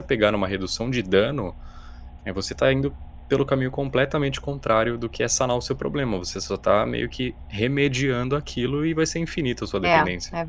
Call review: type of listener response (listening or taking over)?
taking over